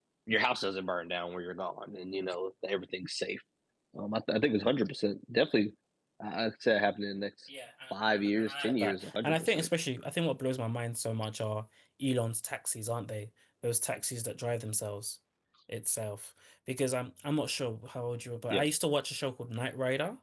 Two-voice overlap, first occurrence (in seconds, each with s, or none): 7.9 s